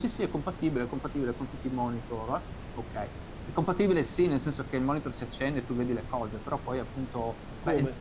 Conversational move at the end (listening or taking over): listening